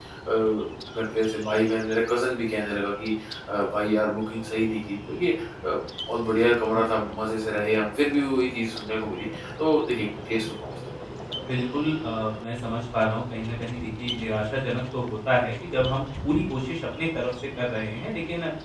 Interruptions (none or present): none